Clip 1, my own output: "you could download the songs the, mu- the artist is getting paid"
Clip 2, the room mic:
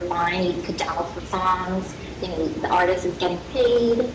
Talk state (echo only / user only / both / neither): echo only